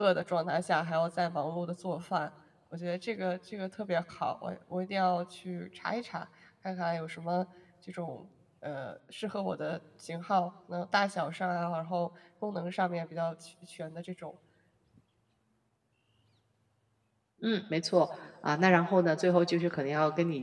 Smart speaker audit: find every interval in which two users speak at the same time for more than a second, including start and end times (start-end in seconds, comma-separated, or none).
none